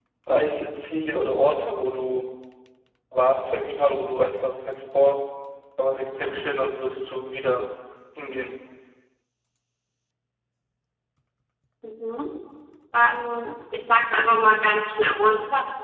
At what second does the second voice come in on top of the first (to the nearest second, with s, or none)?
none